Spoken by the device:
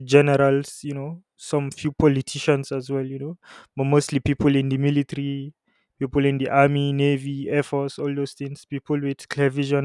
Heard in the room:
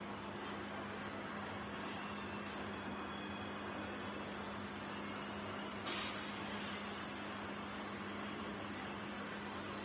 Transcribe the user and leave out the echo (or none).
none